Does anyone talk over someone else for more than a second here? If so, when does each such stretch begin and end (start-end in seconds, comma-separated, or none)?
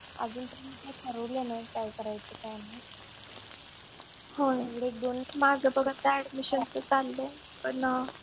none